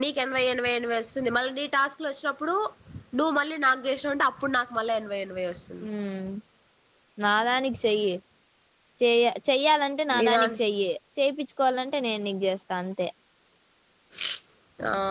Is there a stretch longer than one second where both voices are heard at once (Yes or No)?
No